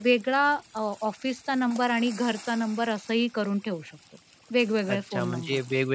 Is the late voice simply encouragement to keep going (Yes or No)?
No